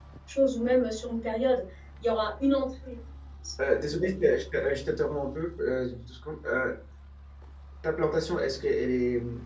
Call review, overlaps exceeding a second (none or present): none